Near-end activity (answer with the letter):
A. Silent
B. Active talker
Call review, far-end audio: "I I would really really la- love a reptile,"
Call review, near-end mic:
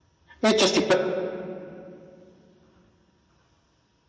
B